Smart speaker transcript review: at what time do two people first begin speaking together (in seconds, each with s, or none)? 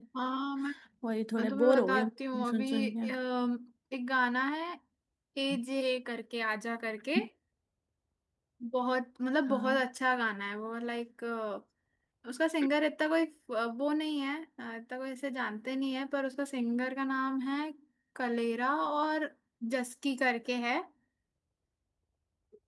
1.4 s